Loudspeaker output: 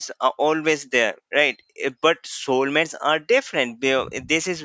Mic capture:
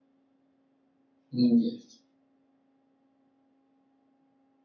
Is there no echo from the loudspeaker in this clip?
Yes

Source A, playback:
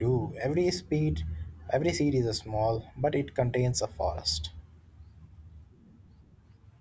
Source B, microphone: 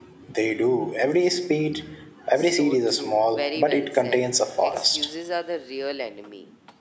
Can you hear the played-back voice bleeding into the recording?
Yes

